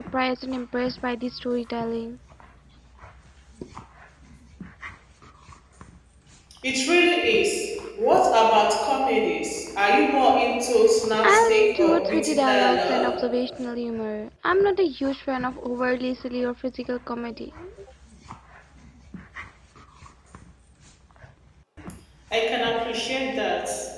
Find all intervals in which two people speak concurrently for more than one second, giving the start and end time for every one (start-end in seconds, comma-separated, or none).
11.2-13.1